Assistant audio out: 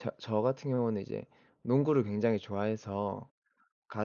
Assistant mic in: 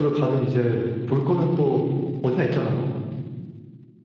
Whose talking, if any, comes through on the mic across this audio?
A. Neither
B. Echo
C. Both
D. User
D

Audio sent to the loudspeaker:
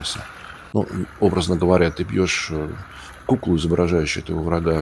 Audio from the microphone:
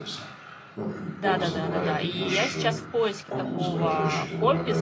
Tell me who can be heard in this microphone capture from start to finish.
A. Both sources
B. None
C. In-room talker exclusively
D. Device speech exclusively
A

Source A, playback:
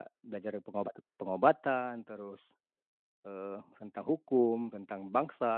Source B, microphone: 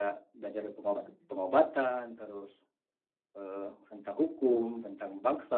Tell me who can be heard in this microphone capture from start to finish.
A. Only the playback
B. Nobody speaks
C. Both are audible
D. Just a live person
C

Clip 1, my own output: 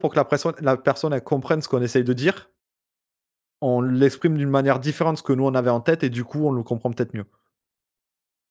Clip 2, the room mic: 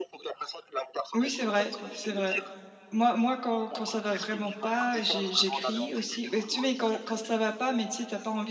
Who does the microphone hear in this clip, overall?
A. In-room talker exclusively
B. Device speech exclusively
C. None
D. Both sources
D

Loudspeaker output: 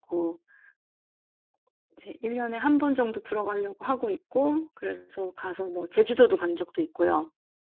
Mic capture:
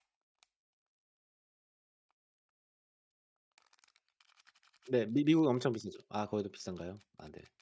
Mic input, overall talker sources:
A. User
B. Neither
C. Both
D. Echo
A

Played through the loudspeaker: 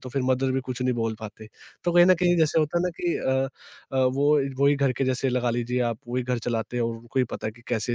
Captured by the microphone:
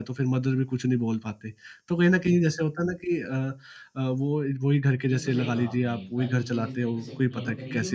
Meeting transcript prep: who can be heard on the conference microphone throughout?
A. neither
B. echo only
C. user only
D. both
D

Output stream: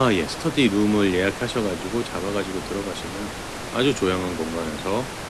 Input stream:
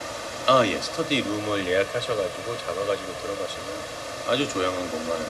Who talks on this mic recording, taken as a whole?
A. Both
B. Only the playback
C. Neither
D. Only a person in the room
B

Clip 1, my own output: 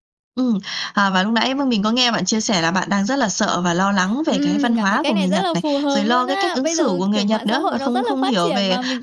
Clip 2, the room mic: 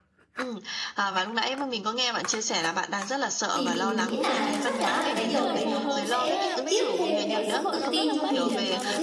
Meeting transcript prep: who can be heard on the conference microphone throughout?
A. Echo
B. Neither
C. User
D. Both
D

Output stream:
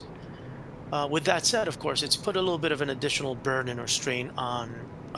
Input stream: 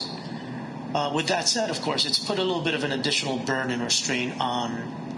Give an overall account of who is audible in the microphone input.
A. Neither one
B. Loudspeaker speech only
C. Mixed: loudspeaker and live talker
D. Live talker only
B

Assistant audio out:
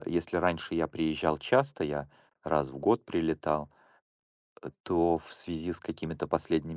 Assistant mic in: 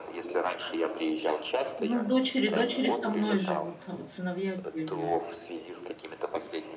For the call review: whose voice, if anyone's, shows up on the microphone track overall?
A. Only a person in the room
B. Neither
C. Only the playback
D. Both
D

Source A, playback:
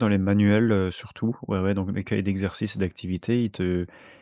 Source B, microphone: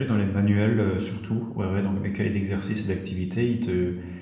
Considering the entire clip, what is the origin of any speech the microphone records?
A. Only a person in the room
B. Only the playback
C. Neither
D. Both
B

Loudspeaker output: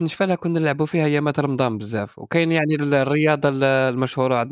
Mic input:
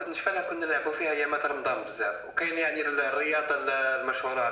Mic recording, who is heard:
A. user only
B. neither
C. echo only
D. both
C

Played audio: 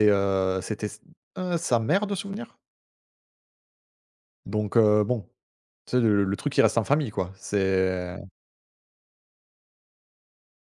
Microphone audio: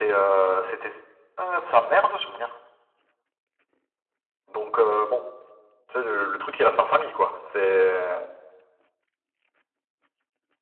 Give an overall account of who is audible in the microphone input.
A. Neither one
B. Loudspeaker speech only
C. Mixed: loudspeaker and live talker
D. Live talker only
B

